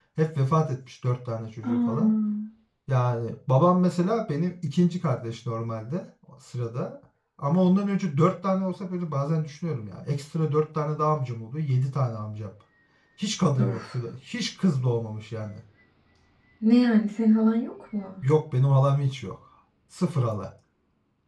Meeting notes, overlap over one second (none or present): none